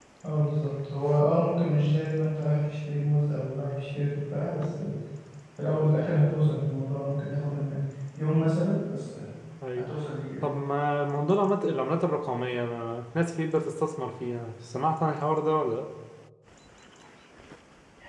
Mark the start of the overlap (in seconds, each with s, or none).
none